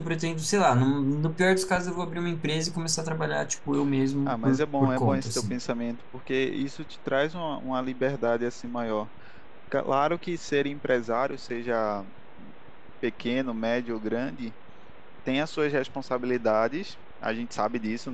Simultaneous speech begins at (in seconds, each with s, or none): 4.3 s